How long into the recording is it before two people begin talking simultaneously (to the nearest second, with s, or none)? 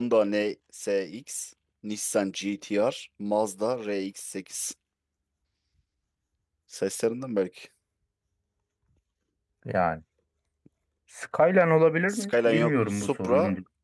12 s